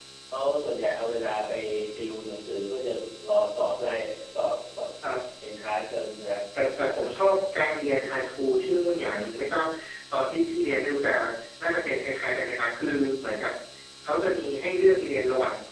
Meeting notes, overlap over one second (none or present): none